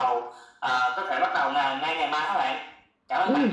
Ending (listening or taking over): taking over